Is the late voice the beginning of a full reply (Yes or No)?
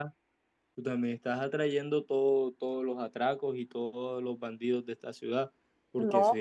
No